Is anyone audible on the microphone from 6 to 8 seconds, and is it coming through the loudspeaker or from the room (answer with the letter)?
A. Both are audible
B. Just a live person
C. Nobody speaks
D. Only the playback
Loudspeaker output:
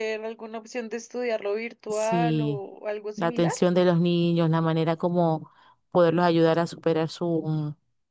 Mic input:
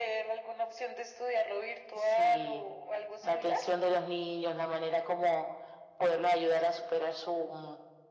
D